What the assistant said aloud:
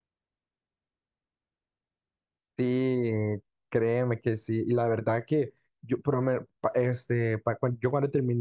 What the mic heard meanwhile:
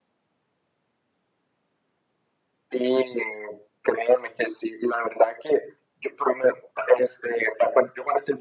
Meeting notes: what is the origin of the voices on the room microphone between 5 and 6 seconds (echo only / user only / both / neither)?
echo only